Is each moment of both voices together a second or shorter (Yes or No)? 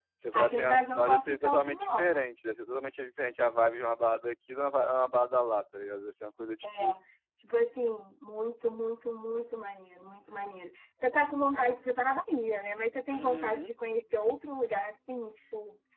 No